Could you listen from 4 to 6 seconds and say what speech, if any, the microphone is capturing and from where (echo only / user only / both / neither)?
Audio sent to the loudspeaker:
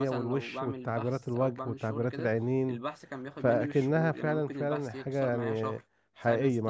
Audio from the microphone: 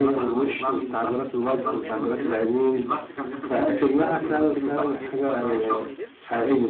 both